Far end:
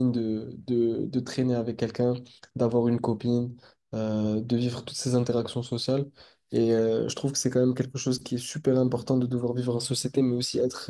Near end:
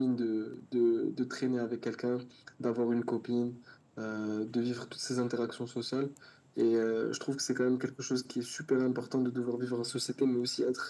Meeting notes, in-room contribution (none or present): none